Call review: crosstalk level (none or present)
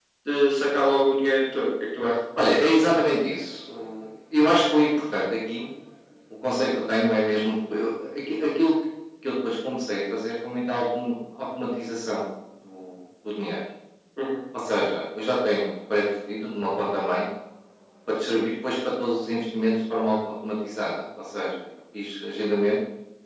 none